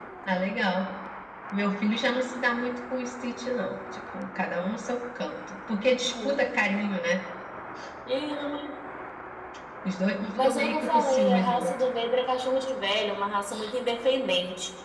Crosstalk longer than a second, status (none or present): present